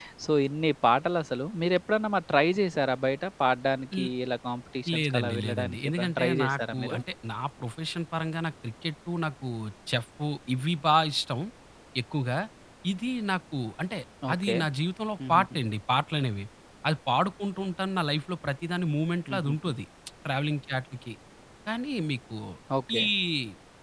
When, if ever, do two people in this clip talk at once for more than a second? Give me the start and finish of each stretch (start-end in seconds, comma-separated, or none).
5.0-7.0